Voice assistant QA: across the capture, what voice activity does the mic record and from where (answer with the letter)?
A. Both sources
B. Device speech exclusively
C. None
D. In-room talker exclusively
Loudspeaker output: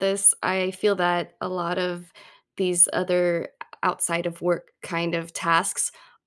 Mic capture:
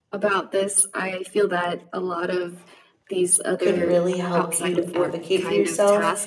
A